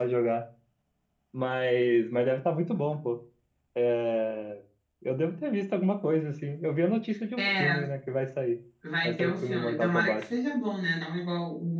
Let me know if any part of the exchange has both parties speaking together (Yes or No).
Yes